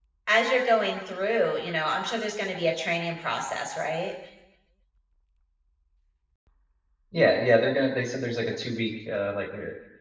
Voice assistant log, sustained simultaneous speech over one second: none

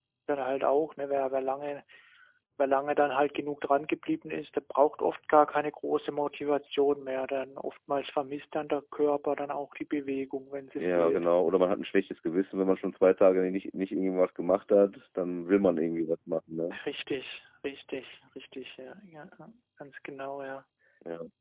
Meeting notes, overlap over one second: none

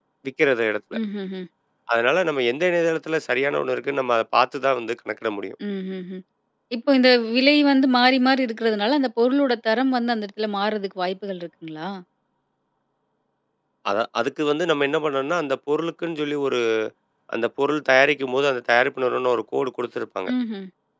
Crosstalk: none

